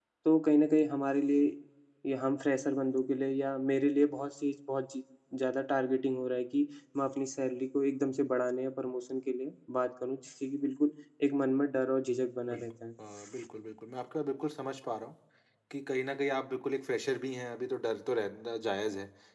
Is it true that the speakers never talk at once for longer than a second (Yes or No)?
Yes